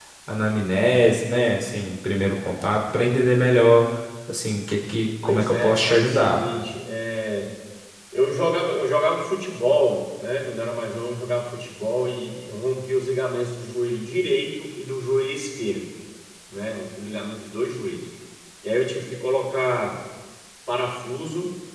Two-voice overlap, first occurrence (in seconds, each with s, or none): 5.2 s